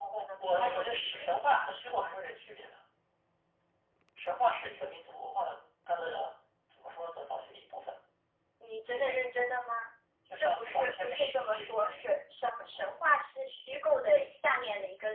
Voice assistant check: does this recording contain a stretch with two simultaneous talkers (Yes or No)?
Yes